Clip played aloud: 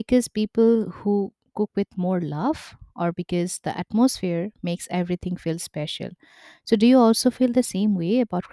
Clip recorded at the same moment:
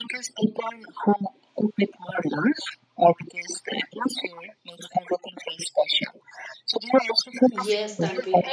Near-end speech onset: 7.5 s

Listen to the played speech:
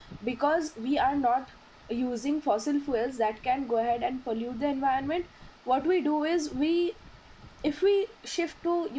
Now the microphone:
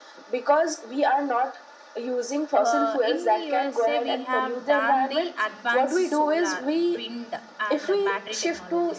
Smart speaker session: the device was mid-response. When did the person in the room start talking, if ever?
2.5 s

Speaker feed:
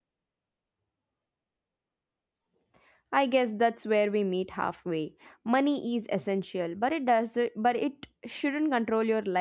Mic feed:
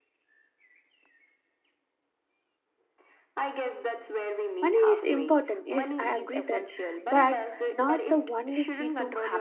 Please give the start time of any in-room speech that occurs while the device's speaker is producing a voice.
4.6 s

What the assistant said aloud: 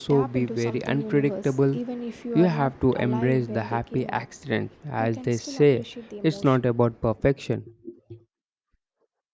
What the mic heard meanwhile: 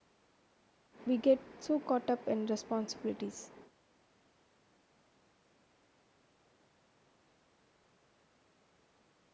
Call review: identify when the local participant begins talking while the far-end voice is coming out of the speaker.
1.1 s

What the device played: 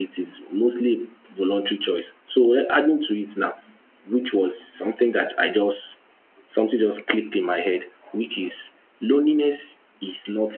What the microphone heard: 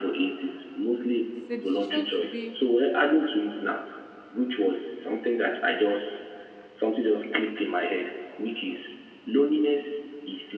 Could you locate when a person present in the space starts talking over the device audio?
1.3 s

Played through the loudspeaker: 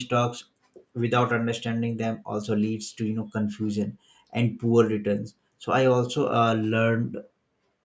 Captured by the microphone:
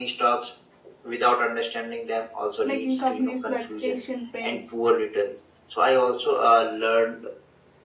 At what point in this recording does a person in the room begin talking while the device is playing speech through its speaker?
2.7 s

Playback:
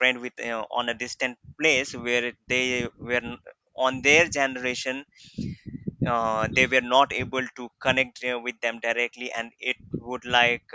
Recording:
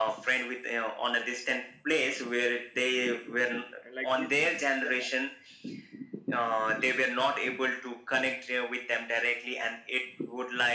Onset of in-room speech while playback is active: 3.8 s

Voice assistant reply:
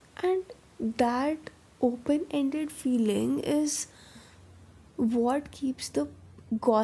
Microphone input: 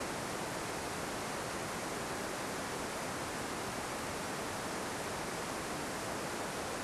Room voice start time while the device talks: none

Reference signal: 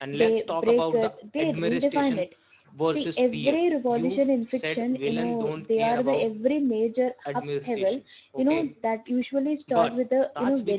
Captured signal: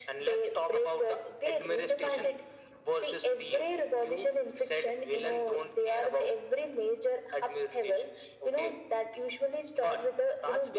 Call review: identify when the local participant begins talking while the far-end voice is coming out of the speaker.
none

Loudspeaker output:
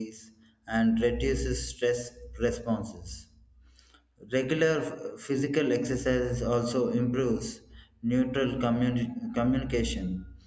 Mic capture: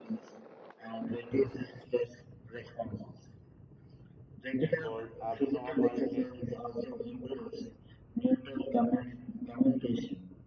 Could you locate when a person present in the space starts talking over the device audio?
4.6 s

